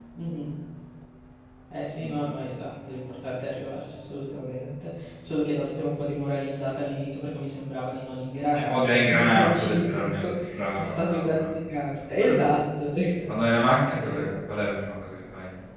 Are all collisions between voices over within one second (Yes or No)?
No